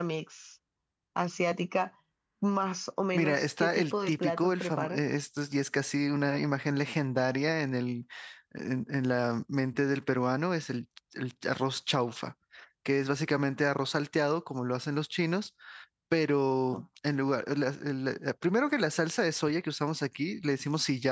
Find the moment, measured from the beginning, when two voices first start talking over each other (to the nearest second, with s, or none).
3 s